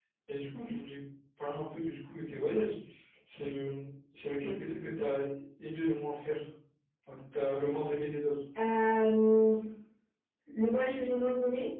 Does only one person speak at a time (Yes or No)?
Yes